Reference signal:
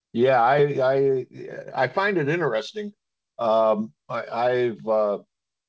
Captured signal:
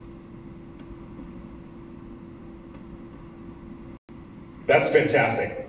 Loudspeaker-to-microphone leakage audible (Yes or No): No